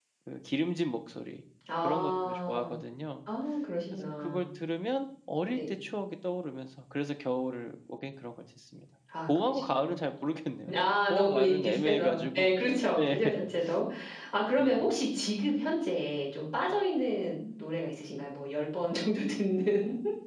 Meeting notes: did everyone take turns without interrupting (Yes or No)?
No